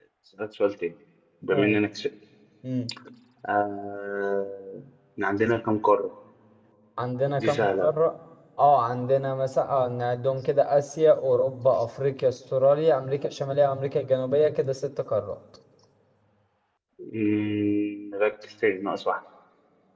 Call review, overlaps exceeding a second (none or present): none